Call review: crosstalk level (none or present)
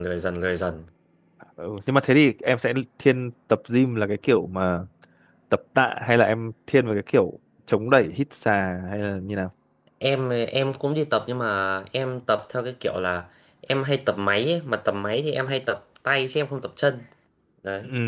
none